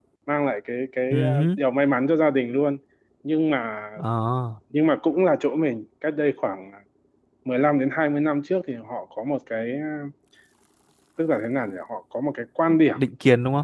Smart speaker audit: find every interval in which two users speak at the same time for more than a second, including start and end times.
none

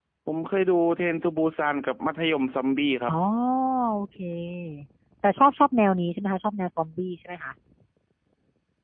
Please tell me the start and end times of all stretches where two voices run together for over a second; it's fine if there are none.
none

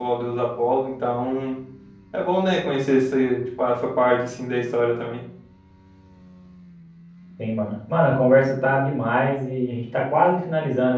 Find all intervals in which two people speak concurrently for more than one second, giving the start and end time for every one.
none

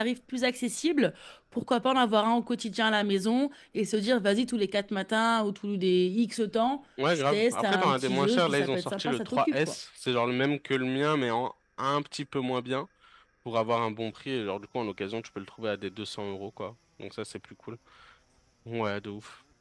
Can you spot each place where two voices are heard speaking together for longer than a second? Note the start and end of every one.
7.1-9.7

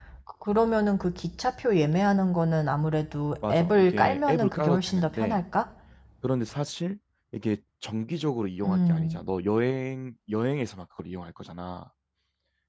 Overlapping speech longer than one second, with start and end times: 3.4-5.4

